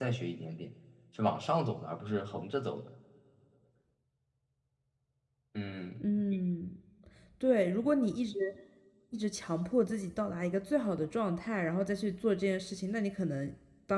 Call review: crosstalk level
none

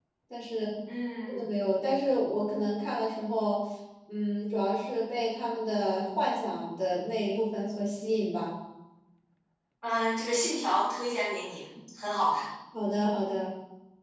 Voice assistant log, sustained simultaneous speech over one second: none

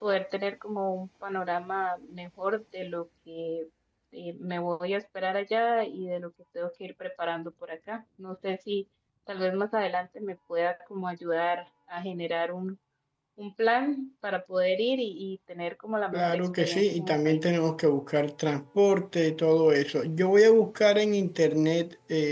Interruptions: present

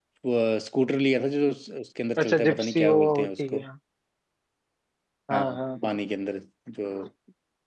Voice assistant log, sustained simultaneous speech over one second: present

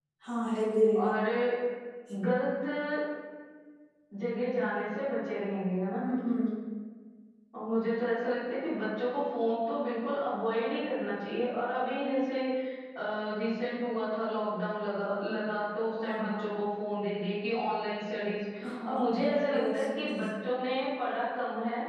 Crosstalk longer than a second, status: present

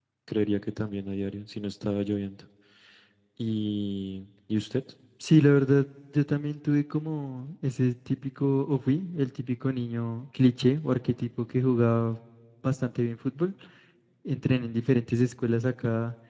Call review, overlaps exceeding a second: none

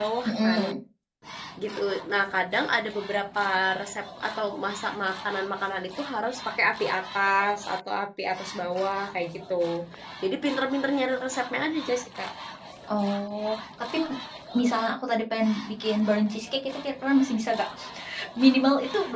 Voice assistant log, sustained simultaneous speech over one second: none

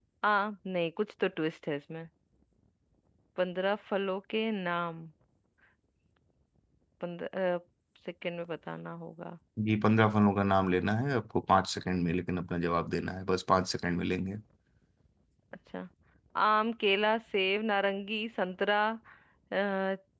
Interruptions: none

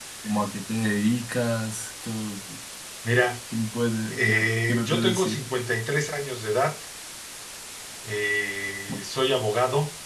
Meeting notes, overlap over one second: present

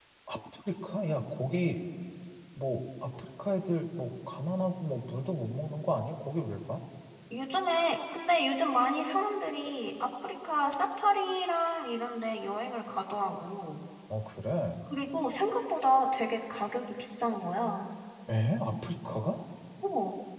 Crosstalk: none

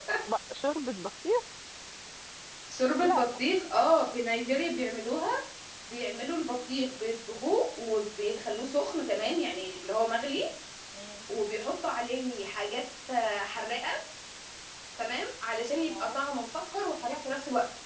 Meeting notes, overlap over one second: none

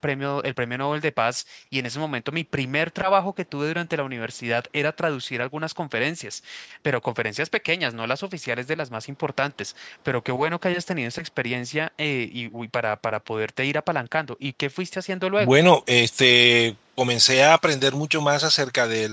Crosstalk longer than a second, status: none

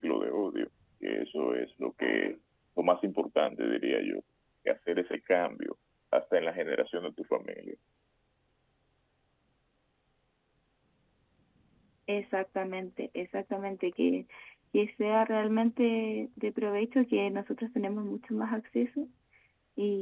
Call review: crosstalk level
none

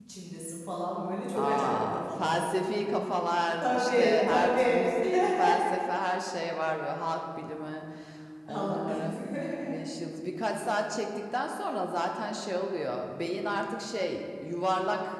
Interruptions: present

